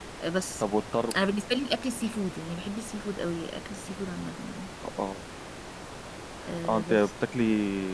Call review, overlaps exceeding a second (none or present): none